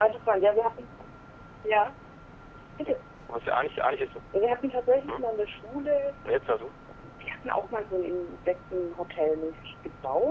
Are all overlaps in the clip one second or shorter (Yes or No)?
Yes